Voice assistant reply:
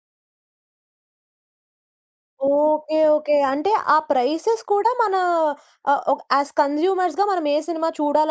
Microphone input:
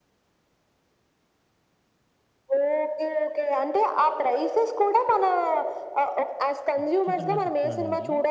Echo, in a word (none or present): present